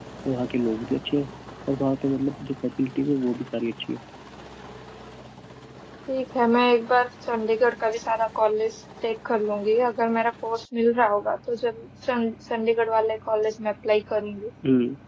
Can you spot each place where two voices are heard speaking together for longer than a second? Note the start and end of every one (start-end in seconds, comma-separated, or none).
none